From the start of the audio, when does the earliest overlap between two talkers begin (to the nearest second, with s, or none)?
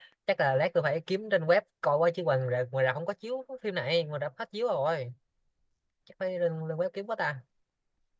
none